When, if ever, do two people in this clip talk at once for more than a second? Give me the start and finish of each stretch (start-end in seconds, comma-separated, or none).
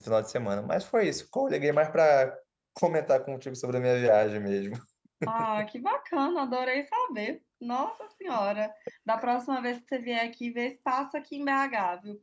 none